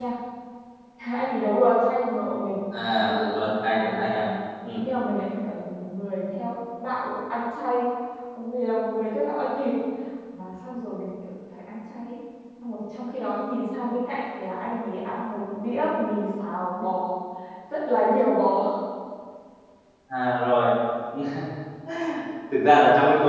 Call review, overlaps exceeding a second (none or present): none